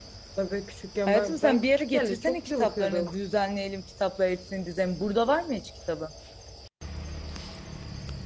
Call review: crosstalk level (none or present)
present